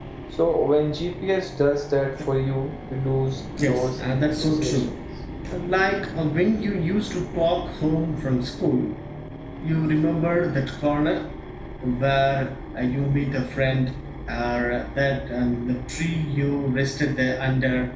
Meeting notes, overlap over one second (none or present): present